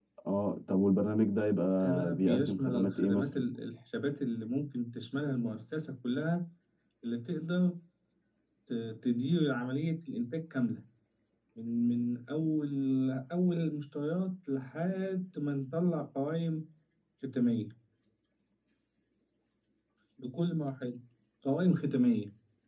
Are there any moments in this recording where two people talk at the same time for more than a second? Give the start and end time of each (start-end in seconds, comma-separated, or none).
1.8-3.5